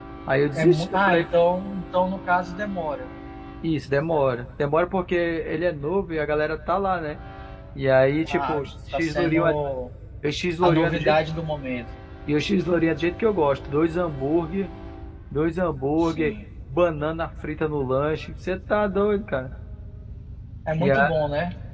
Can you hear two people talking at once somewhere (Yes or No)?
Yes